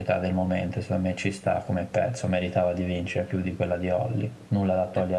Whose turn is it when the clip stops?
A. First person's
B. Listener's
B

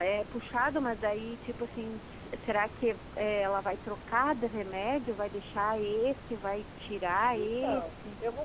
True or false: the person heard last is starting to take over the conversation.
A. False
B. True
B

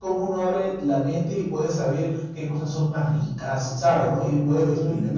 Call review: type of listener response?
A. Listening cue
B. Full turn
B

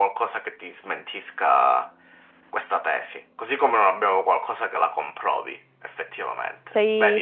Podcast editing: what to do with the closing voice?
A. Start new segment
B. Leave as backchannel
A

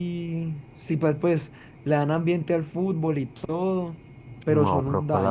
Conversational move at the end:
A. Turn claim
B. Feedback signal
A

